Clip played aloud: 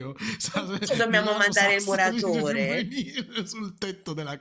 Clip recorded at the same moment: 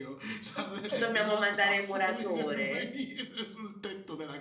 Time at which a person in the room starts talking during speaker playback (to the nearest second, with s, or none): none